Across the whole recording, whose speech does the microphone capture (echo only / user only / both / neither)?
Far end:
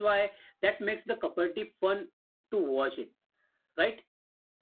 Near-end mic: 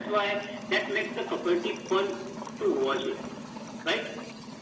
echo only